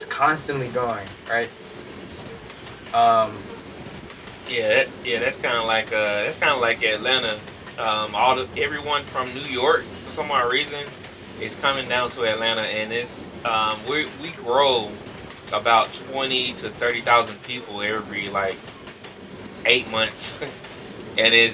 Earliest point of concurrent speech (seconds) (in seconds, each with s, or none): none